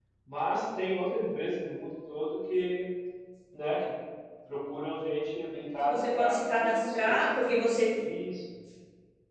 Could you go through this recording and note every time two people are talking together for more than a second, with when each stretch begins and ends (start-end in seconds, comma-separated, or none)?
5.8-7.3